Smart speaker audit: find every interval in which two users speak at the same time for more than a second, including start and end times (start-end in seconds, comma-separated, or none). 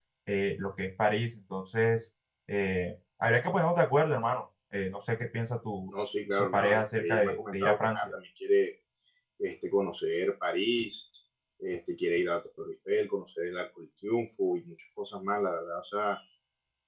6.5-8.0